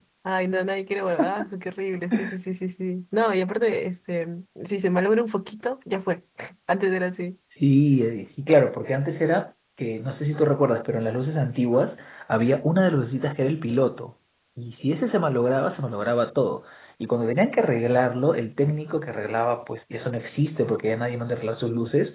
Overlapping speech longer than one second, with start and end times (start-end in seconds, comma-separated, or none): none